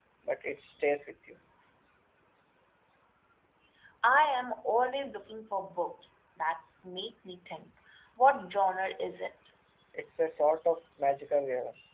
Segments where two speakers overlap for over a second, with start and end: none

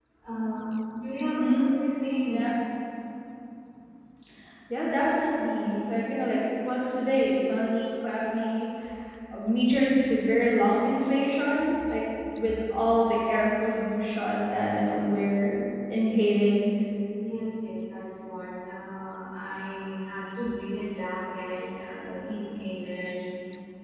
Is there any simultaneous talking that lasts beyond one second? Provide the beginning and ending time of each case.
none

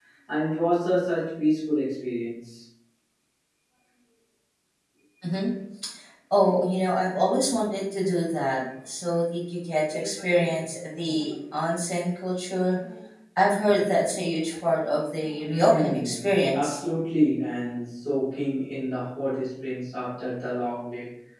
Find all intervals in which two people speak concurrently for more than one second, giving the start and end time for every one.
15.4-16.8

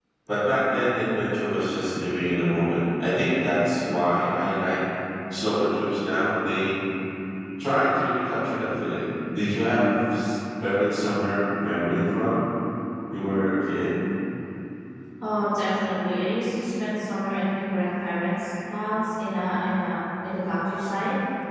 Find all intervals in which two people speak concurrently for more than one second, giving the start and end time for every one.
none

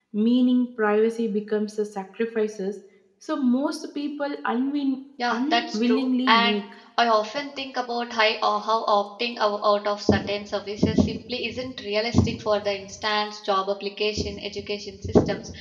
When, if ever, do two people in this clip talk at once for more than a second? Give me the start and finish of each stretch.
5.3-6.6

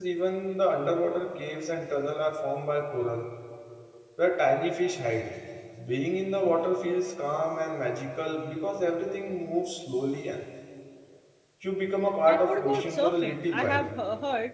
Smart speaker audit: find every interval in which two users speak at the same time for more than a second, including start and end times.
12.3-13.9

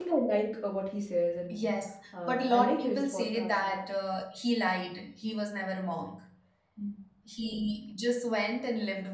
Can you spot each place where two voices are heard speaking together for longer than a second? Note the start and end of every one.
2.3-3.9

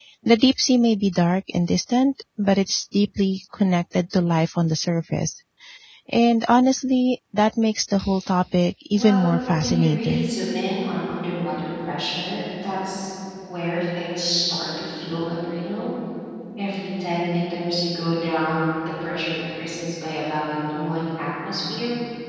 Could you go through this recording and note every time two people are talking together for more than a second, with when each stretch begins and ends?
8.9-10.3

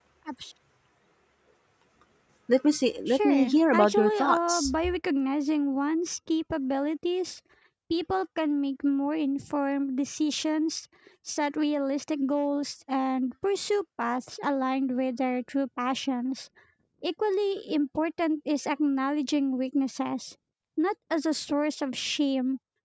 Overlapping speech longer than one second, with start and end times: 3.1-4.8

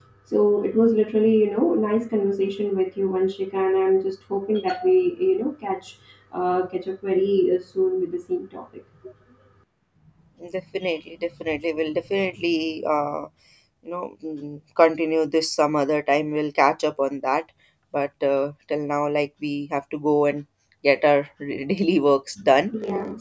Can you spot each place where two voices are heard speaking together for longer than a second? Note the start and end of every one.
none

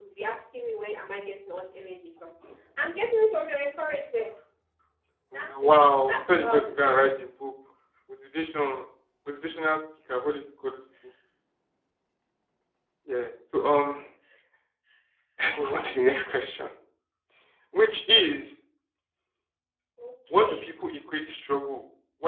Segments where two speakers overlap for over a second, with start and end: 5.3-6.9

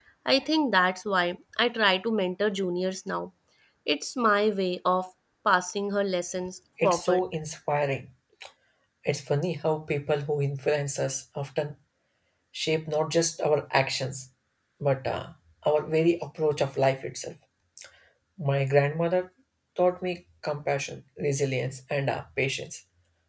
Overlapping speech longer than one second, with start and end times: none

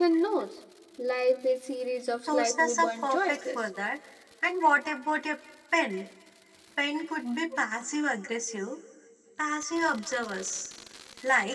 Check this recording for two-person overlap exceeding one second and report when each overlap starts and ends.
2.3-3.6

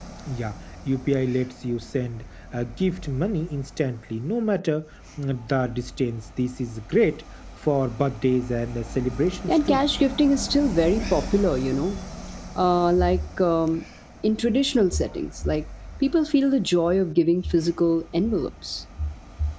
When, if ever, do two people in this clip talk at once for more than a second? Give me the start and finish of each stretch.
none

